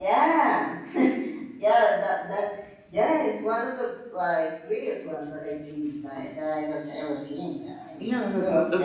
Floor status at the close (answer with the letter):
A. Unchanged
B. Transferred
B